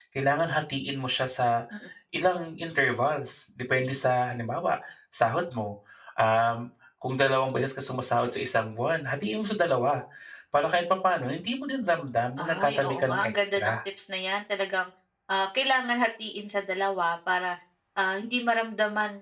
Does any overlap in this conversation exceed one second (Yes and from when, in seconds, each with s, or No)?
Yes, from 12.4 s